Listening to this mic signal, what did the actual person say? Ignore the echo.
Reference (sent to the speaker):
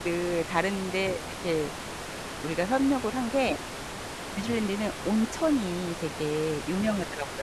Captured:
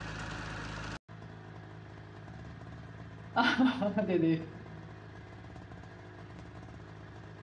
아. 네네.

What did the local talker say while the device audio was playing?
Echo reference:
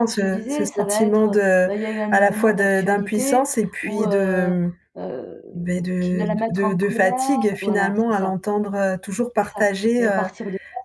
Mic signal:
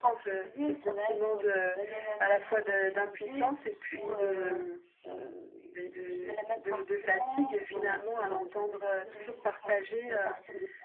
heu, j'apprécie vraiment

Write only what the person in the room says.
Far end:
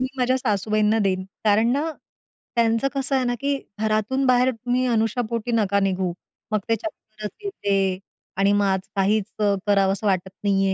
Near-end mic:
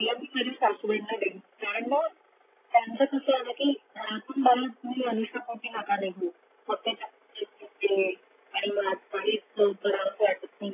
none

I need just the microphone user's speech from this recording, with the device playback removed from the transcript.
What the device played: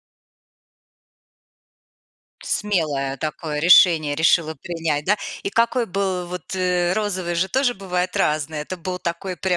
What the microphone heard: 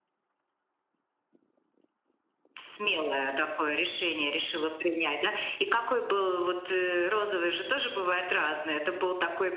none

